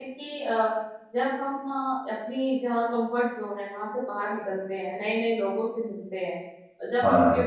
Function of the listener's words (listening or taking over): listening